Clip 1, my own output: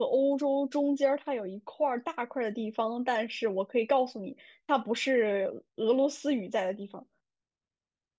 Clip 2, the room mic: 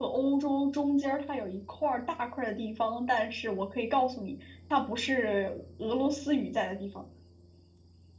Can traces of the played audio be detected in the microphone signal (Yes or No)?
Yes